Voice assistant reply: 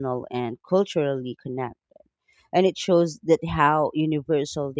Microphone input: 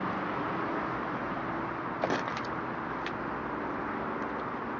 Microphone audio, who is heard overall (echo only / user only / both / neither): neither